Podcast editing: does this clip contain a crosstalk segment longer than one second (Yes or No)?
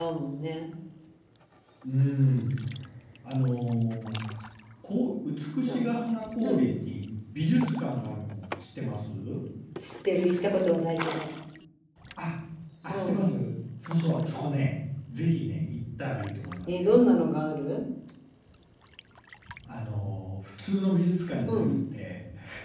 No